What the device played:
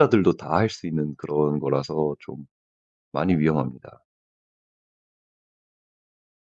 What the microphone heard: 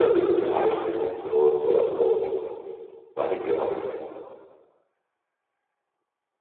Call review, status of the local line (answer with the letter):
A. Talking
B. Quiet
B